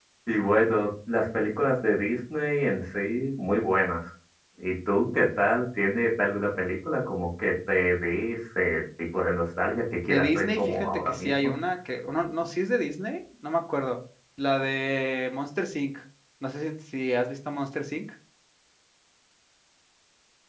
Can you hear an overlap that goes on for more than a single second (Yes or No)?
Yes